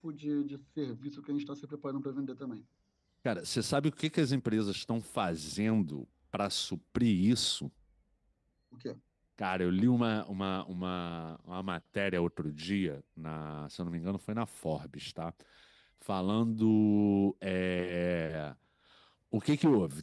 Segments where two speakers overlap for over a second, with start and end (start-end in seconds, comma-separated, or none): none